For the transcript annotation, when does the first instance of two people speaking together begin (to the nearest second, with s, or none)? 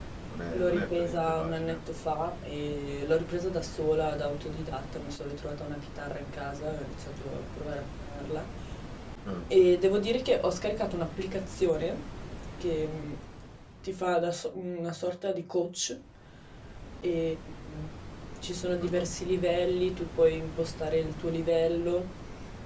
1 s